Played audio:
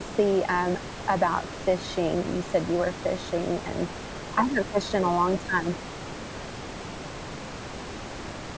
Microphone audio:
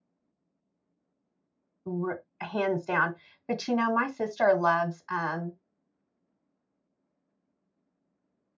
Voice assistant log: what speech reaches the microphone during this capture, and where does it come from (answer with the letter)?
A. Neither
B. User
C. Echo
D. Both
B